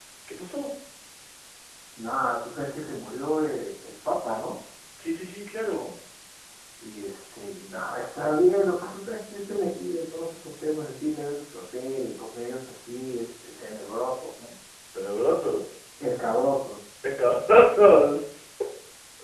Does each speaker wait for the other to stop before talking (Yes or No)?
Yes